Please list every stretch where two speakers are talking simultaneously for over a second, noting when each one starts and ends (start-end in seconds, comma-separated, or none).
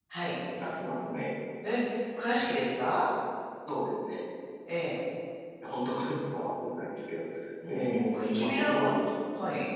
7.7-8.9